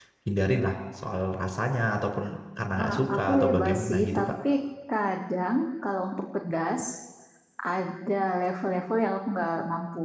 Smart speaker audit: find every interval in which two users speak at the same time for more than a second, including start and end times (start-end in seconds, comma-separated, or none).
2.8-4.3